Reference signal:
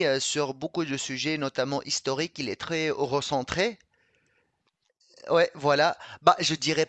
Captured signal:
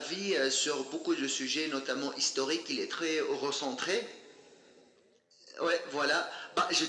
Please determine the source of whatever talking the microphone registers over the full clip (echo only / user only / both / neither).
echo only